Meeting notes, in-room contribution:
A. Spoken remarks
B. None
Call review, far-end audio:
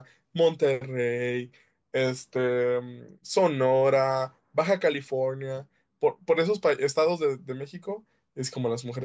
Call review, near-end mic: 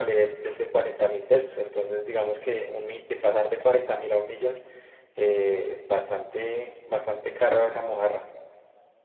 A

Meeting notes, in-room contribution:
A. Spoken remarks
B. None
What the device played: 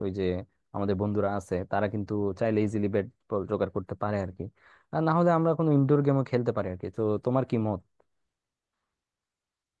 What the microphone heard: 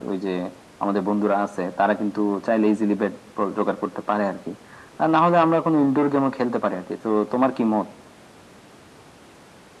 B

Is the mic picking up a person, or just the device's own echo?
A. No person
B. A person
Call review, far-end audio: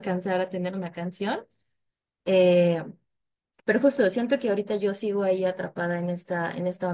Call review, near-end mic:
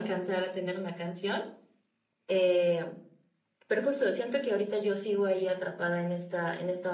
A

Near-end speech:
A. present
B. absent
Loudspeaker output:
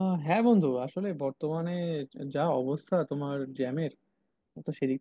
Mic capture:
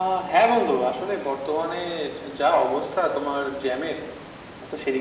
B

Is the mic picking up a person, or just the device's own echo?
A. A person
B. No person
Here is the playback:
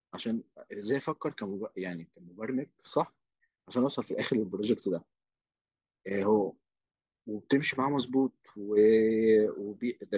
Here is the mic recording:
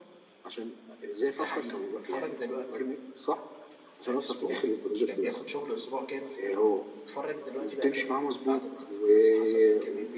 A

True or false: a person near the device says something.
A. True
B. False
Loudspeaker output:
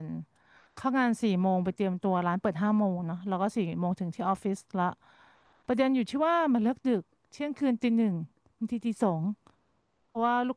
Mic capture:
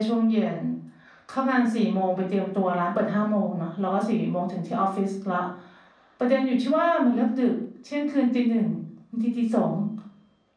B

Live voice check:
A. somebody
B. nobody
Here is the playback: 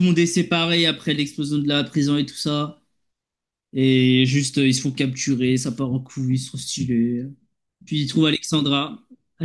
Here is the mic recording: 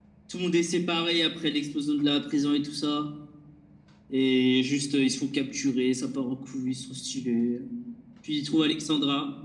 B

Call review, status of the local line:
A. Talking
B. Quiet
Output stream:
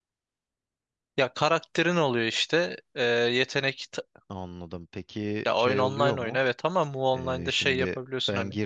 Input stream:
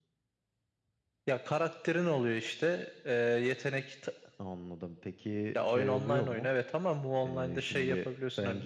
B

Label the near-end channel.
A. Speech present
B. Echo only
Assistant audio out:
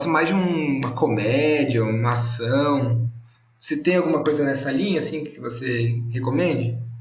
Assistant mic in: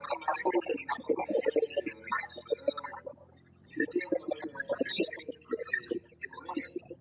B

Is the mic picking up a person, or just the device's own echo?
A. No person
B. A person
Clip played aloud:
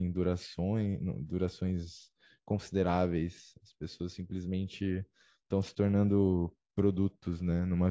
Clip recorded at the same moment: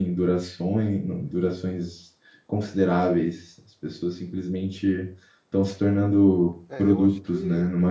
B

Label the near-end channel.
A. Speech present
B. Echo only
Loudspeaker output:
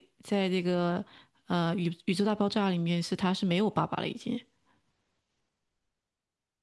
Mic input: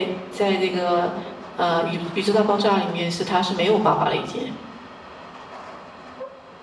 B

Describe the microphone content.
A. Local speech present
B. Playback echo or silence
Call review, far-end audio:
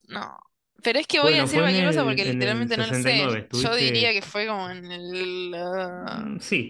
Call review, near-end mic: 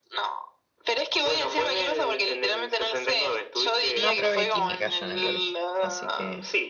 A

